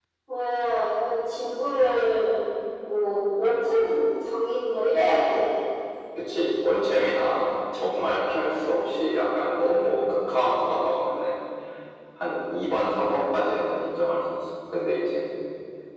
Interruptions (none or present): none